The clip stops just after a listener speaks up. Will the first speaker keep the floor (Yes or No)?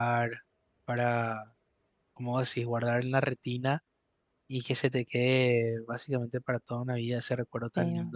Yes